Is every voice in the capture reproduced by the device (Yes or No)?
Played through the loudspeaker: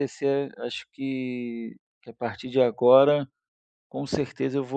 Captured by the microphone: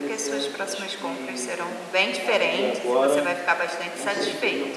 No